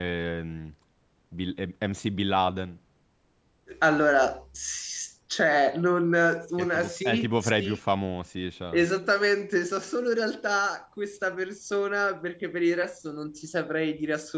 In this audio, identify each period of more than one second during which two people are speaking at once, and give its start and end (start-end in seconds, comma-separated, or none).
6.6-7.8